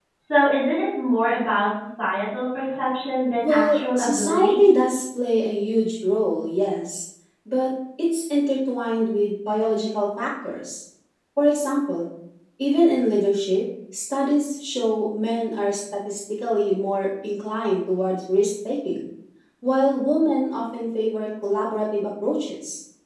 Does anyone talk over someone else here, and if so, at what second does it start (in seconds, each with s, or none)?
3.4 s